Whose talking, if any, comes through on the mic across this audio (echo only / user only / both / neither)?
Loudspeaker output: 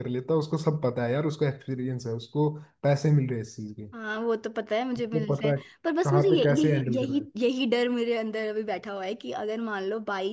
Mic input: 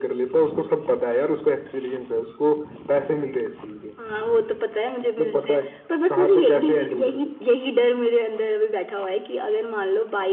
echo only